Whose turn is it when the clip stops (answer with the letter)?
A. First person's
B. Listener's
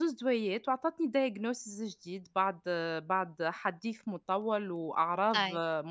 A